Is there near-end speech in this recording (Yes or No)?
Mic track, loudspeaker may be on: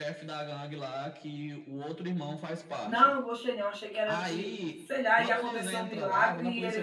Yes